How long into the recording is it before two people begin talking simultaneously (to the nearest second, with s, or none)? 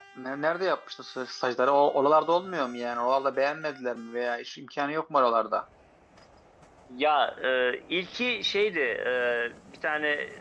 none